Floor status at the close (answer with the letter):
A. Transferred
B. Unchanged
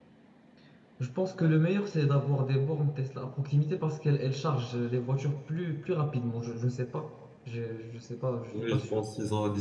A